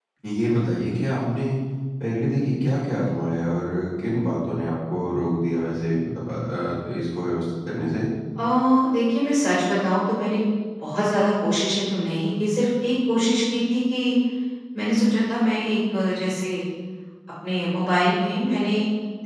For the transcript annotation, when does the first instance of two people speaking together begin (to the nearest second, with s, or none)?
none